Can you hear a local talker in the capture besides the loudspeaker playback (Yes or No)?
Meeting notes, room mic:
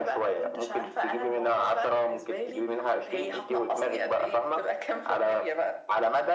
No